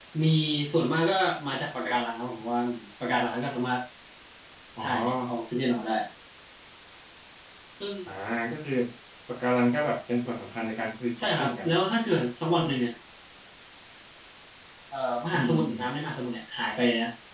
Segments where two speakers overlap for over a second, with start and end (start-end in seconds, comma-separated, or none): none